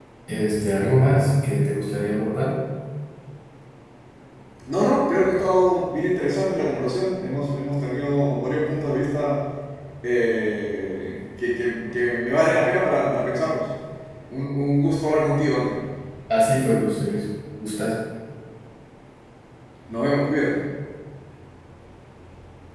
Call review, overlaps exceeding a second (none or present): none